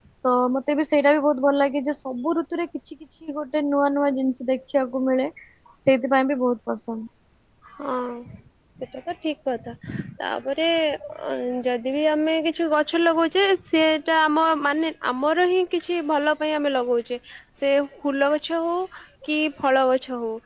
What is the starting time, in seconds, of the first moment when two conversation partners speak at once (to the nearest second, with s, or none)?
none